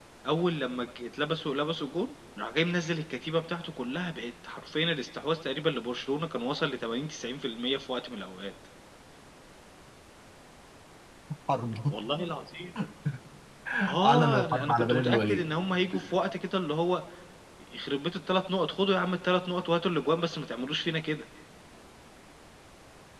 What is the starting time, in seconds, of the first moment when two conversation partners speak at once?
14 s

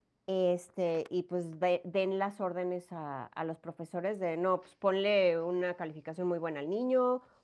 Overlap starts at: none

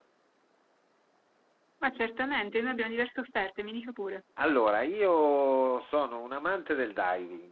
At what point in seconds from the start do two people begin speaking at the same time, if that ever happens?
none

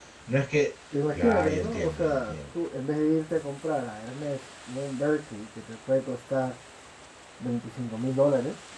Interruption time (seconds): 1 s

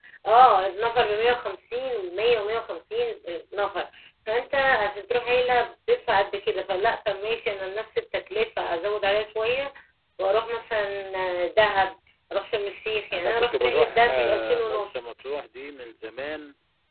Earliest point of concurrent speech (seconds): 13 s

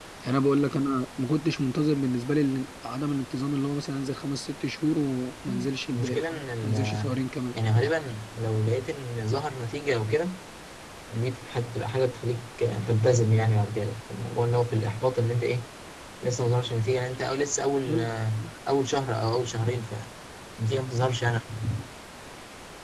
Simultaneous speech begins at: 5 s

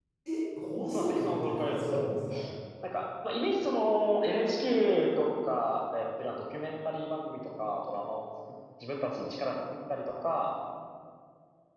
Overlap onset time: 1 s

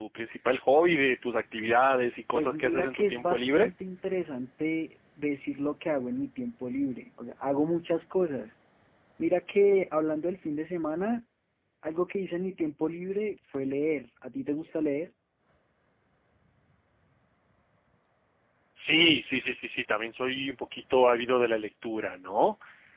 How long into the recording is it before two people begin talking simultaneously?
2 s

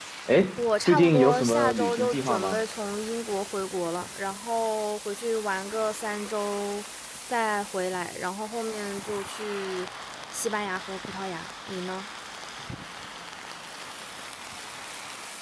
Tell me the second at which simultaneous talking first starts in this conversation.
1 s

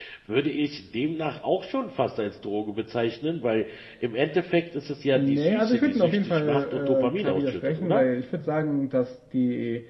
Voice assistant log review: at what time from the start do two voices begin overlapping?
5 s

